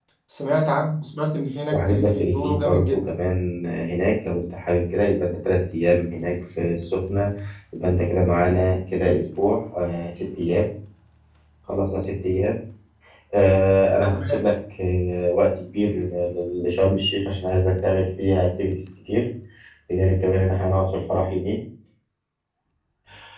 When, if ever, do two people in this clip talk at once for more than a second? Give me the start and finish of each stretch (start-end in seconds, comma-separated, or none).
1.7-3.2